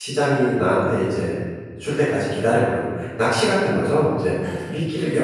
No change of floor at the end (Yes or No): Yes